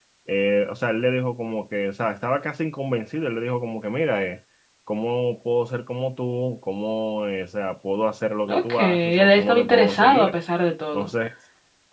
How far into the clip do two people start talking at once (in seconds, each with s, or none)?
8.5 s